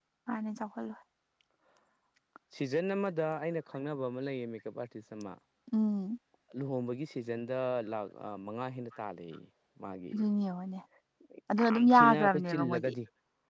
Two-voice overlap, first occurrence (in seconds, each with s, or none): 11.7 s